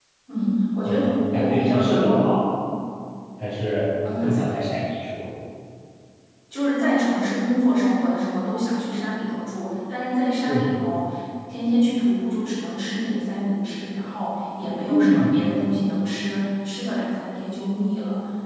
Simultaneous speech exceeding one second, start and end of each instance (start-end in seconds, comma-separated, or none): 0.8-2.3